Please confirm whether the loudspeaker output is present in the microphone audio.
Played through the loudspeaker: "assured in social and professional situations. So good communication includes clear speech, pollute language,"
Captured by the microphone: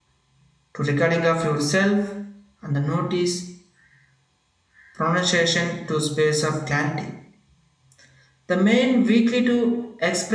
No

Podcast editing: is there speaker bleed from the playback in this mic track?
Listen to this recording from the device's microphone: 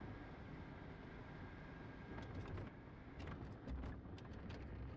No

